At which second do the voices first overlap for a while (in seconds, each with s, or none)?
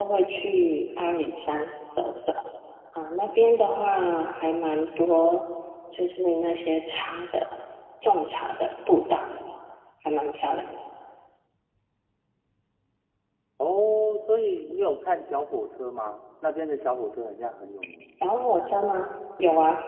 none